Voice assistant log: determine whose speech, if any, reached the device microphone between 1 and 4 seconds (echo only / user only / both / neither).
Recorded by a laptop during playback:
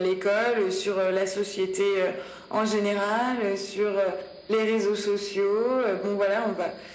echo only